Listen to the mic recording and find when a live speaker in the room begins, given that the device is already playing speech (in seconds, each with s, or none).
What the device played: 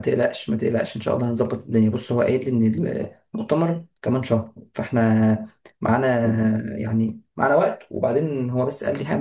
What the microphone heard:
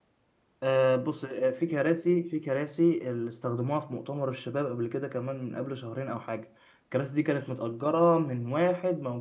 0.6 s